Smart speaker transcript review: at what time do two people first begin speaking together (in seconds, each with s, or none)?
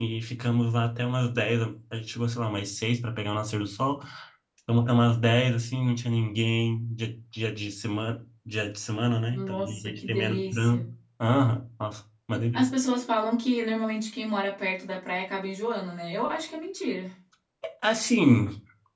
9.3 s